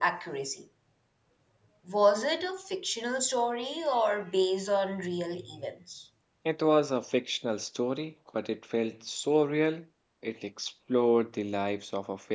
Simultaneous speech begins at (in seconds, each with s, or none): none